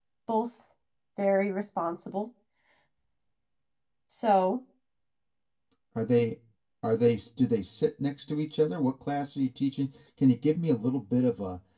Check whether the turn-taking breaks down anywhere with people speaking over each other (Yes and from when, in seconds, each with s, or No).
No